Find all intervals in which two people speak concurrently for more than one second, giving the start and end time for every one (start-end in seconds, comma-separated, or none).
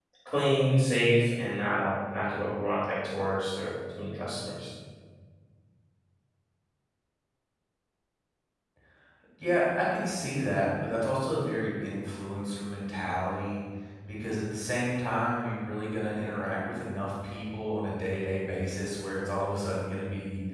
none